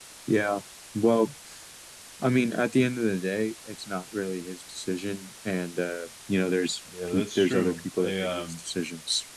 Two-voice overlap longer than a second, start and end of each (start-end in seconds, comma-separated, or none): 7.1-8.6